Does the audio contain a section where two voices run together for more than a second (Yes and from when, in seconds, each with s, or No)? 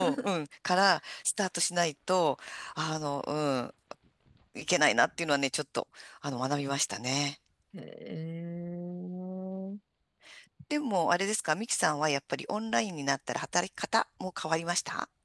No